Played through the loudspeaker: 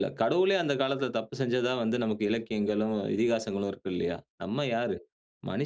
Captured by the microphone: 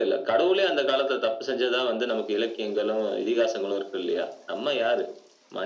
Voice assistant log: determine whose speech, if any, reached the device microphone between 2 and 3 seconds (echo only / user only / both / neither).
echo only